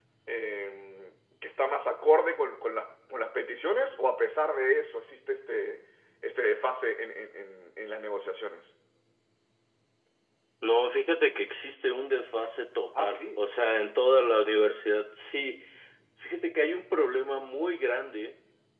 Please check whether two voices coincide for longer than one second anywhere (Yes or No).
No